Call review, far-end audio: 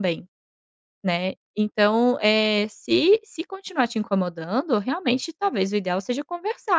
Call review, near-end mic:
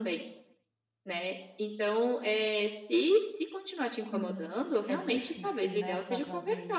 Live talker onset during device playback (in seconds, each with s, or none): 4.1 s